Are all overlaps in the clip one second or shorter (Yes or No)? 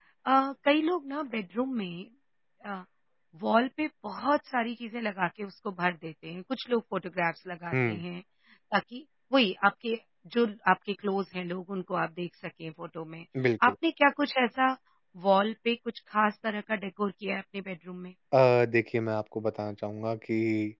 Yes